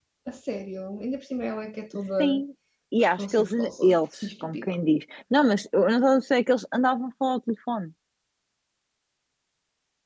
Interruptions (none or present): present